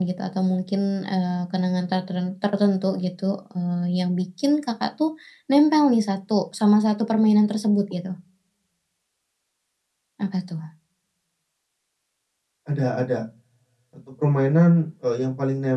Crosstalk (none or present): none